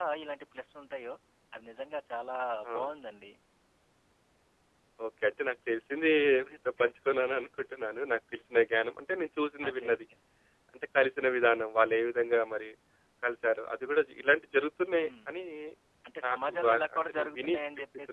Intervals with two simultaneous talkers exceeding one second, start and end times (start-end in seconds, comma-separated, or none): 16.3-17.5